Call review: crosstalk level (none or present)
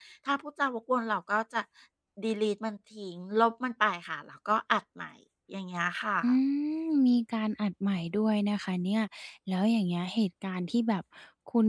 none